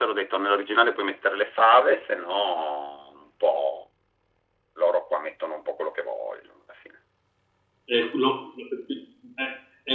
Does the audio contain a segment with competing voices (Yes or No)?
No